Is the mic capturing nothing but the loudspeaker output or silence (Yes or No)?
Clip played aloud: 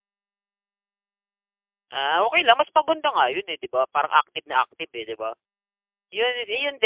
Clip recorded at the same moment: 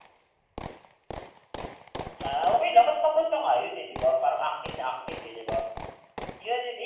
Yes